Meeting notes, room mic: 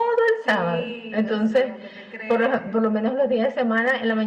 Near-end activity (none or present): present